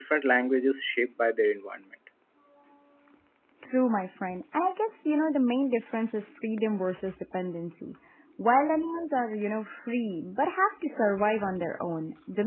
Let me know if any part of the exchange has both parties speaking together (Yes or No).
No